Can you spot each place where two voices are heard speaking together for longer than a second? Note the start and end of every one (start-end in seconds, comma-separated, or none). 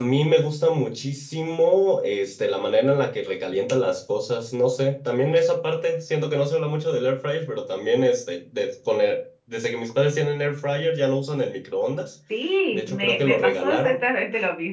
12.7-14.0